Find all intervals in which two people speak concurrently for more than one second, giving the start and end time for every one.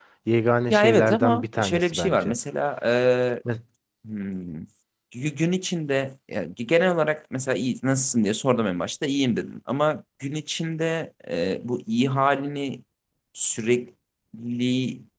0.7-2.3

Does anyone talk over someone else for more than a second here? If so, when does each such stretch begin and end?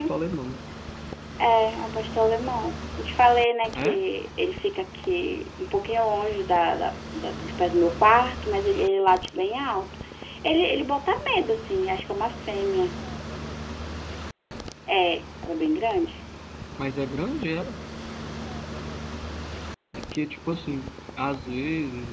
none

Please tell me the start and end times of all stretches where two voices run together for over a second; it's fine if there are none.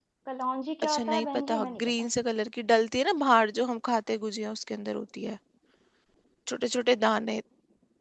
0.8-2.1

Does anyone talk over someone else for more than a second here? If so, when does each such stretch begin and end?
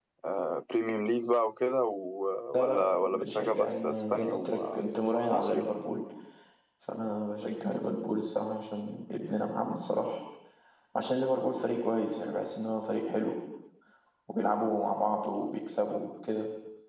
2.6-4.8

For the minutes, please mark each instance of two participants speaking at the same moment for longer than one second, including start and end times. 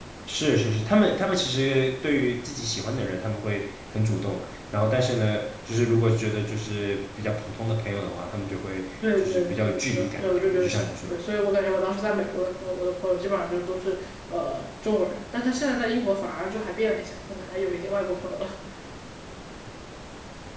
9.2-11.1

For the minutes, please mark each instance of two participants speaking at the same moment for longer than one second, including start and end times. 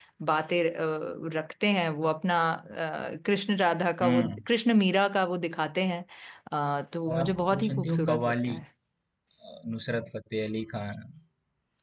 7.1-8.5

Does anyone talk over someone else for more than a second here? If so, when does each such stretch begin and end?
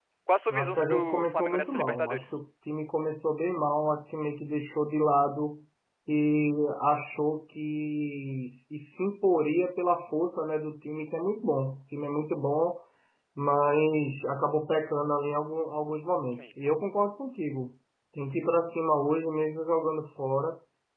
0.5-2.4

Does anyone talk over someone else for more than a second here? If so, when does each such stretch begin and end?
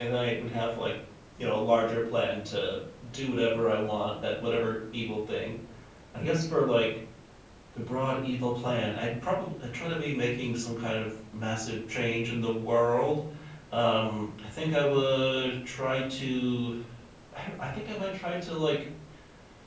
none

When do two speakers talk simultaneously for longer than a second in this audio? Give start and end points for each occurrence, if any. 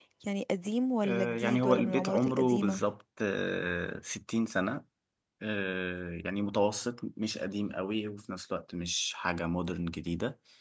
1.0-2.8

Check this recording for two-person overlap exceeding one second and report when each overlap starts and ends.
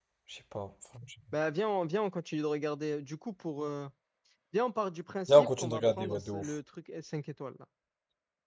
5.3-6.6

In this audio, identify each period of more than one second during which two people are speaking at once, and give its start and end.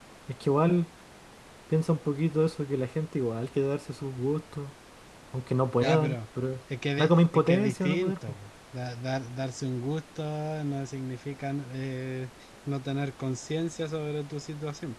7.0-8.4

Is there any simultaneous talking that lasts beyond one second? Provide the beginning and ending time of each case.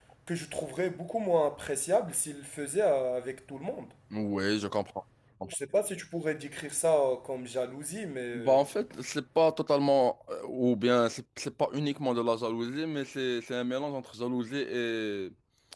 none

